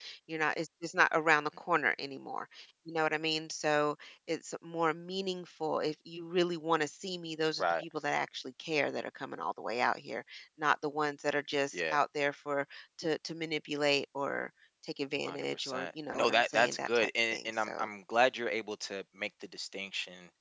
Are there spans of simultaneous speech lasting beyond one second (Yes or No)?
Yes